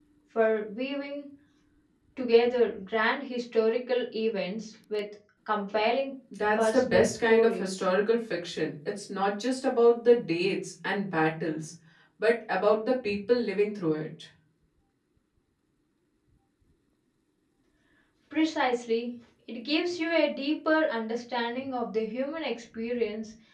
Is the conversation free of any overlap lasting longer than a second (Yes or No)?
No